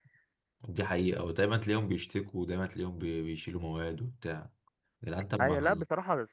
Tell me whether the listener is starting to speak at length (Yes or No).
Yes